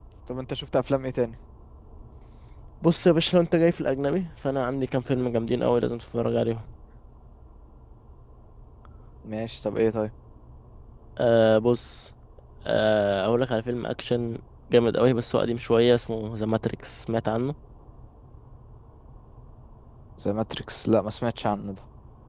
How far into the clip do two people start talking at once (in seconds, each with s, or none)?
none